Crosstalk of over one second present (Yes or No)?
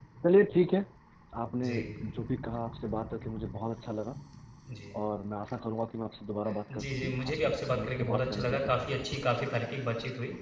Yes